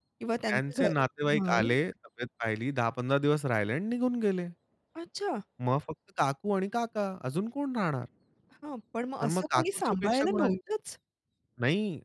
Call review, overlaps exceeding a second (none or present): present